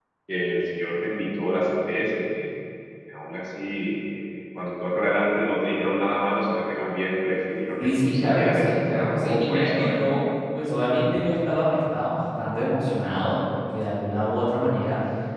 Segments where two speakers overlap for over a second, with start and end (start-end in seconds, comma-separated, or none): 7.8-10.0